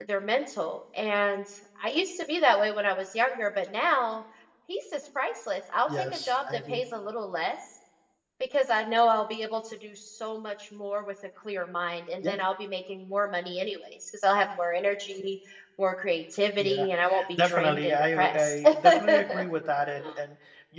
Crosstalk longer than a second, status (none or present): present